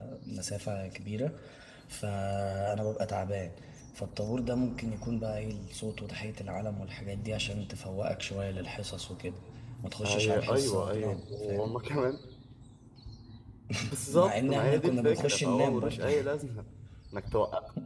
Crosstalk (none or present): present